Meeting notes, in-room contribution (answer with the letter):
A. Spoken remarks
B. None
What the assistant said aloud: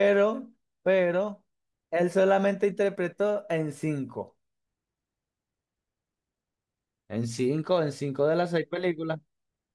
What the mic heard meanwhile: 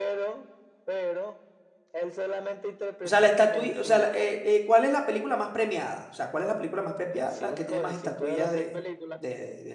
A